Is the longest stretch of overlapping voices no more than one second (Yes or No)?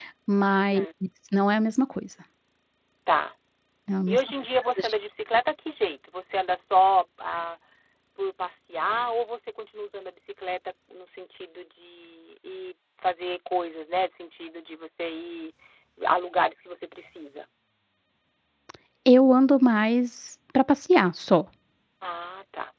Yes